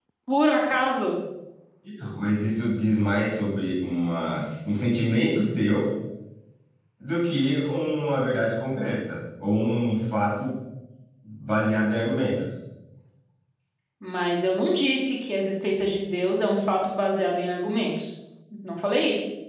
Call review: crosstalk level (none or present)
none